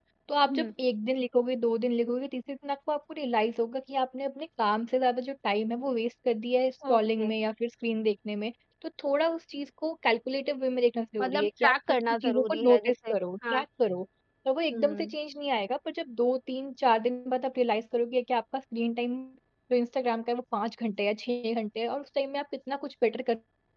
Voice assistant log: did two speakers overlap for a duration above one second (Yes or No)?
Yes